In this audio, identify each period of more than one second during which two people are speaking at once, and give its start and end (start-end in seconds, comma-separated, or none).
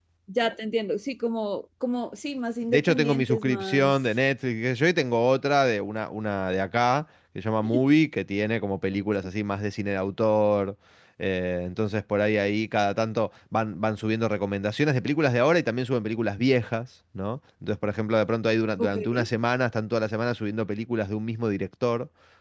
2.7-3.9